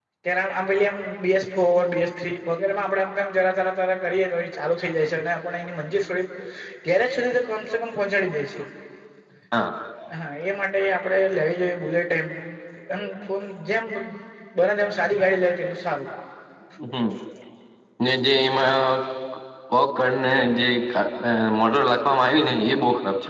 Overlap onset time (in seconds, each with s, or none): none